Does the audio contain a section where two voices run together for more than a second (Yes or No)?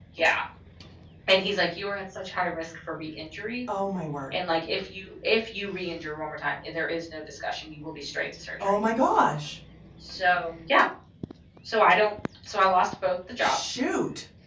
No